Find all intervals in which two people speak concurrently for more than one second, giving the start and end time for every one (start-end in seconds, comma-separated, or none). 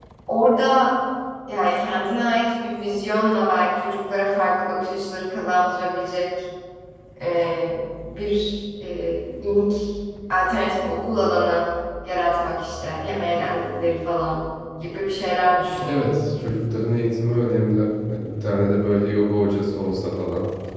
none